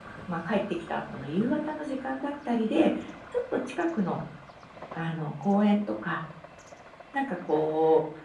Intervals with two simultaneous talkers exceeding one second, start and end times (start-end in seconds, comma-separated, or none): none